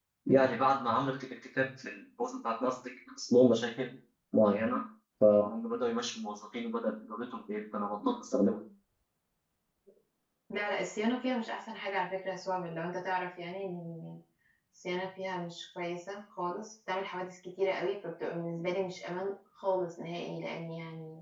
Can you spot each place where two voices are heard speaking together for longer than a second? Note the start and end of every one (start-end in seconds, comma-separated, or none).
none